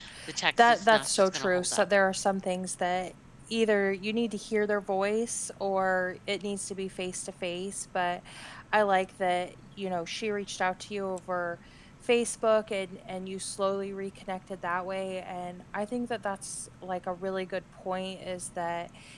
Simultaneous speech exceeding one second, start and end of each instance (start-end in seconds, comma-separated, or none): 0.6-1.9